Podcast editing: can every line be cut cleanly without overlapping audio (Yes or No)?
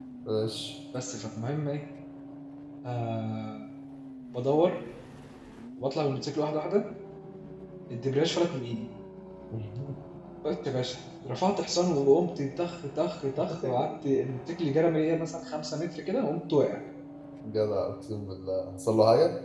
Yes